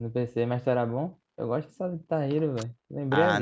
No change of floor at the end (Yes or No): No